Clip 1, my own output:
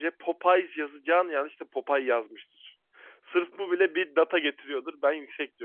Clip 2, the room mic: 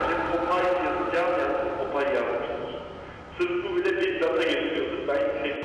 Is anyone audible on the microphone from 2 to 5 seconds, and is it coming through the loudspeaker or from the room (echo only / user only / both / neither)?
echo only